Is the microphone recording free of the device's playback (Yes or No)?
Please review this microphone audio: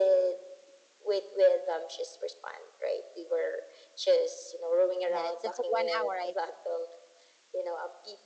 No